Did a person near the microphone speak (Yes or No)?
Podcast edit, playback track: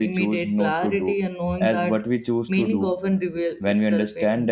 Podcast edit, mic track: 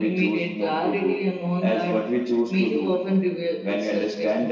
No